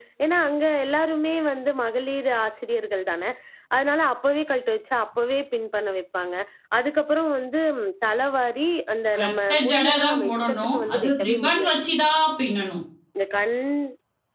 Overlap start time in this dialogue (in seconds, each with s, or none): 9.1 s